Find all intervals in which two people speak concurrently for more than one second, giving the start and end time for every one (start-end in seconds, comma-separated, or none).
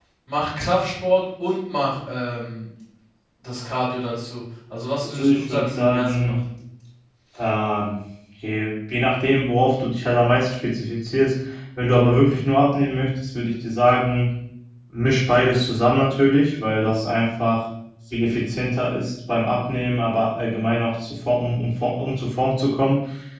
5.0-6.4